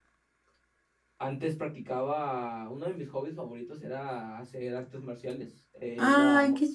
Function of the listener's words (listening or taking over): taking over